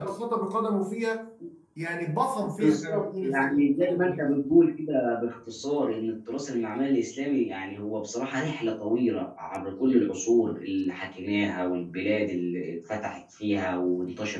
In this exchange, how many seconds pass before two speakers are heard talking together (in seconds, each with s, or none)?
2.6 s